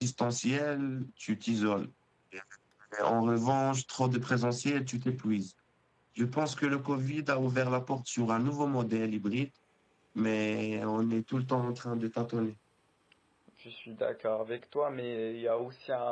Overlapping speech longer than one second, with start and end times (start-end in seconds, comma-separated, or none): none